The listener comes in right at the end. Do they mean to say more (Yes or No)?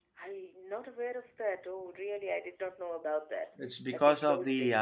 Yes